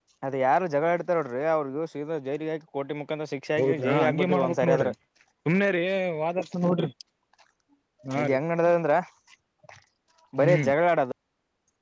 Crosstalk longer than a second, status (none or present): present